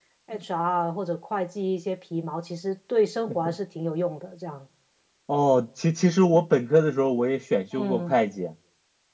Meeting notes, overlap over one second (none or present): none